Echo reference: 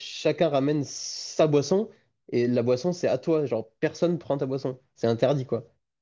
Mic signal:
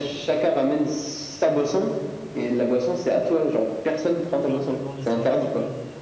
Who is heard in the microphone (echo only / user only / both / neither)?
both